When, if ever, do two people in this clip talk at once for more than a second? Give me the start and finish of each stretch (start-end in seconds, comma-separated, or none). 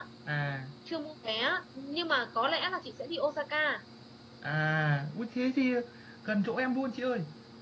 none